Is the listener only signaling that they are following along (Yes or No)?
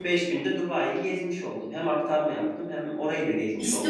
No